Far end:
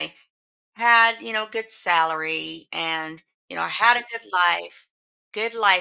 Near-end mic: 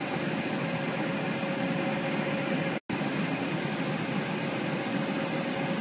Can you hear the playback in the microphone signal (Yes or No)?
No